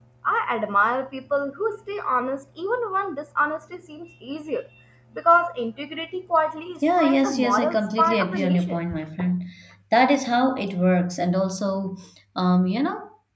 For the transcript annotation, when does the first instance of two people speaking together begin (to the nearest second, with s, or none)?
7 s